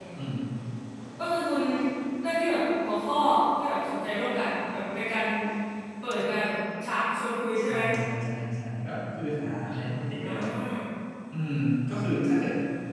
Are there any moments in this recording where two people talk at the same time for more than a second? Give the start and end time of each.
none

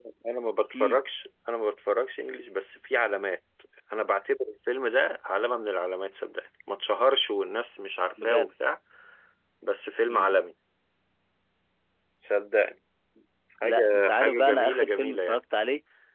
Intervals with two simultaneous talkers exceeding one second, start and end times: 13.6-15.4

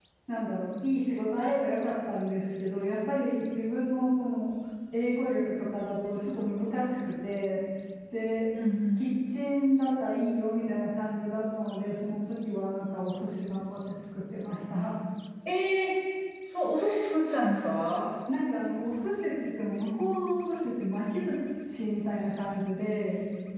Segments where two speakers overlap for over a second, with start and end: none

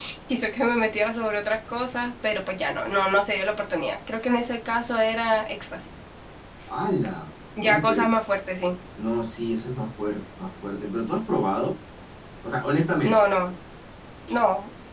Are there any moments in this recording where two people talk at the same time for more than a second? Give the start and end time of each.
none

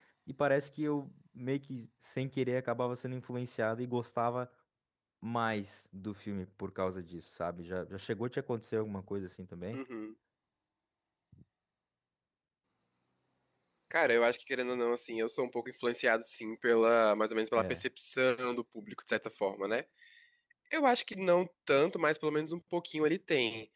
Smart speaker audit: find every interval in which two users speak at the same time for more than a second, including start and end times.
none

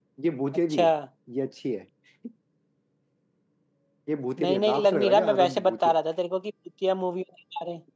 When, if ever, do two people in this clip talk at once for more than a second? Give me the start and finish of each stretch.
4.4-6.0

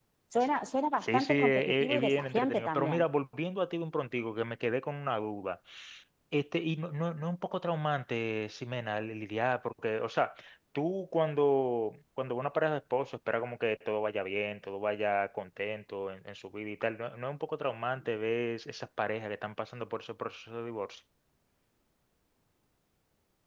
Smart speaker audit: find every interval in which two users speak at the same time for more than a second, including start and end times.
1.0-3.0

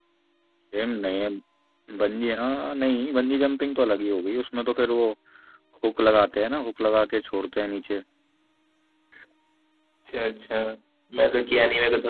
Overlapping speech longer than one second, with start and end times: none

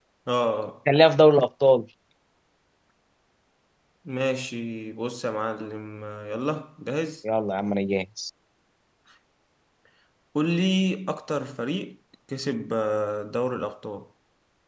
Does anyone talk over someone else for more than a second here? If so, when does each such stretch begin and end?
none

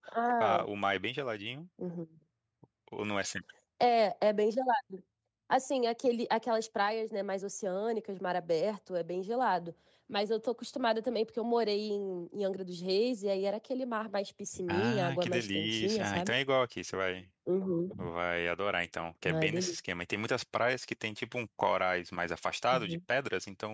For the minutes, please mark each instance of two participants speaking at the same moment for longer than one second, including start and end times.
14.7-16.3

